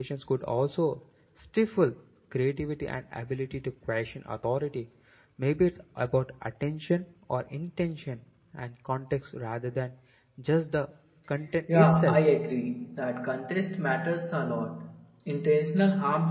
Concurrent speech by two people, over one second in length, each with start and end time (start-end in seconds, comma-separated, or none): none